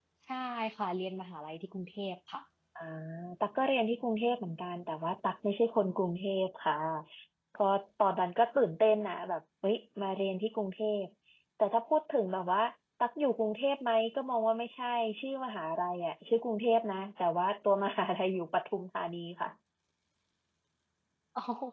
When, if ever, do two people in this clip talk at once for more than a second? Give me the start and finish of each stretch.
none

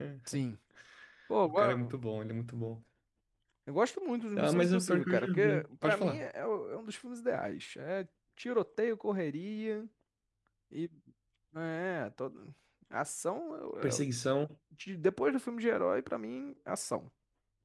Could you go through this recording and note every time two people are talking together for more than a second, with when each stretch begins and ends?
4.4-6.3

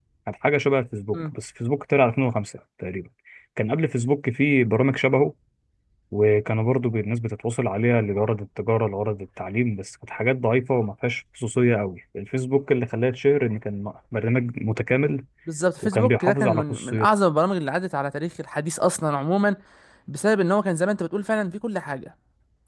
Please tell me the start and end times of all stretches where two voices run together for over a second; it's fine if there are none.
15.8-17.1

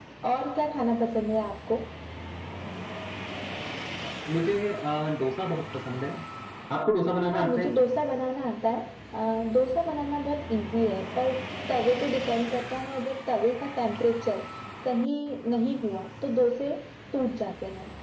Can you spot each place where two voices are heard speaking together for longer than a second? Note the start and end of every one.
none

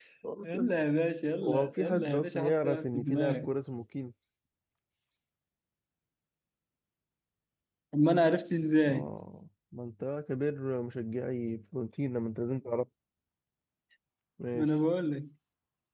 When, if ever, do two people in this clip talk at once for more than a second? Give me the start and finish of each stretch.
1.4-3.5

